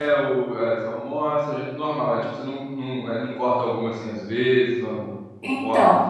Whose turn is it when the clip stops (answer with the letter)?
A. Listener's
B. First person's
A